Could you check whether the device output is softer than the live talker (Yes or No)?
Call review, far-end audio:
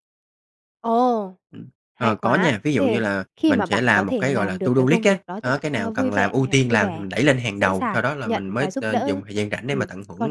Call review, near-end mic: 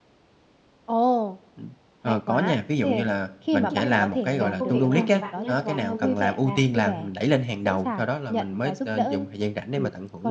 No